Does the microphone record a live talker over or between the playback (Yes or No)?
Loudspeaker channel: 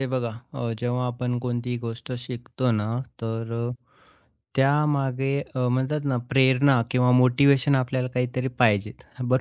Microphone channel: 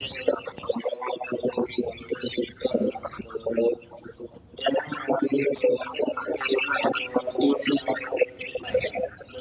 No